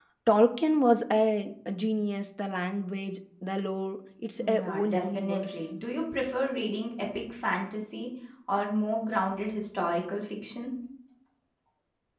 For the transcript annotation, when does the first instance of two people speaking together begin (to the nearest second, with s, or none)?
4 s